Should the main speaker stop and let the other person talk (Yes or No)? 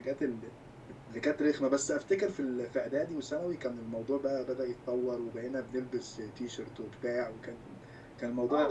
Yes